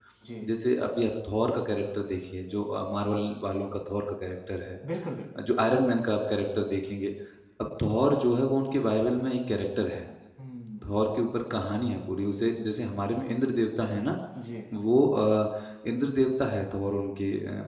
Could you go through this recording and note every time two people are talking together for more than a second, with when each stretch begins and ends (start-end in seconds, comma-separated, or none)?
none